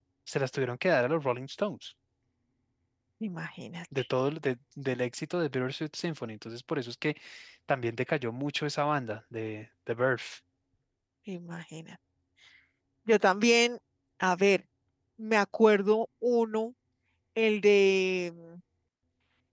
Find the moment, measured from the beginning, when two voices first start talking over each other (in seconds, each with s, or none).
none